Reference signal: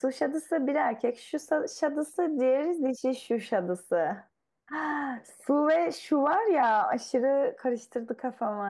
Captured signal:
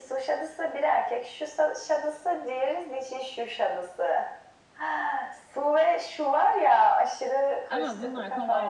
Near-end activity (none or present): present